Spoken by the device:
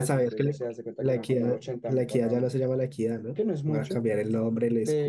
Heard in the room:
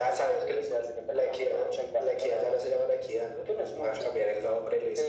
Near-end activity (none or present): none